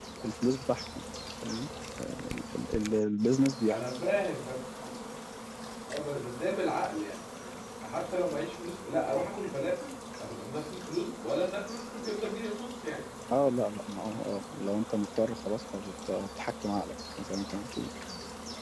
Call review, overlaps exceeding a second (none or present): none